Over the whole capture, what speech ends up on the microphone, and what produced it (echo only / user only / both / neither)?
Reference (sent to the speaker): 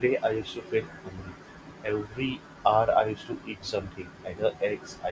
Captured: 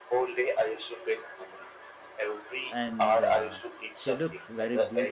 both